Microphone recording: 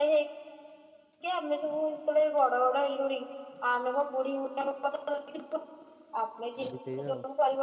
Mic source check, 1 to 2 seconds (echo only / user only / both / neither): echo only